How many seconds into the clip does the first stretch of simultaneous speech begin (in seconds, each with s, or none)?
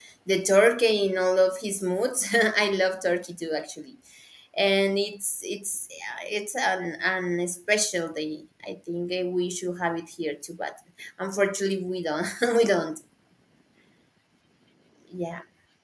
none